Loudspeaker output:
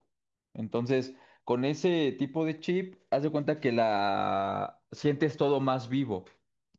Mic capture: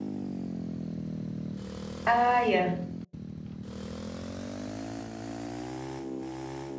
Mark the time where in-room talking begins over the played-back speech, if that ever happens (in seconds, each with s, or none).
2.0 s